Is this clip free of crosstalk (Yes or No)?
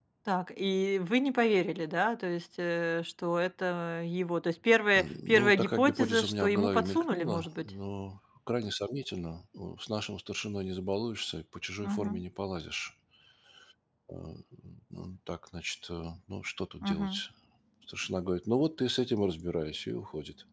No